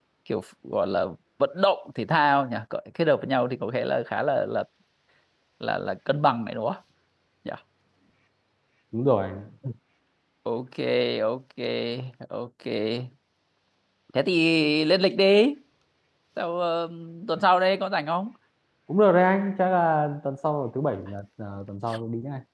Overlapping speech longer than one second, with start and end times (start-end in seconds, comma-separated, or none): none